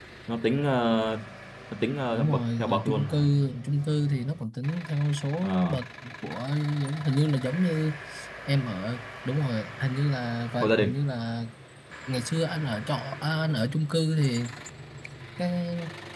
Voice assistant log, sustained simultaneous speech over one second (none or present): present